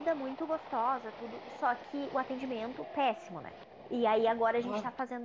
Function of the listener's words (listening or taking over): listening